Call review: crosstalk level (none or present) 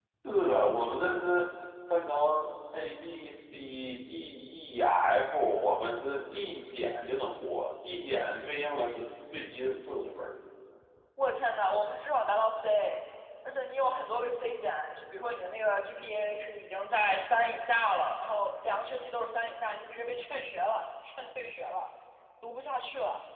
none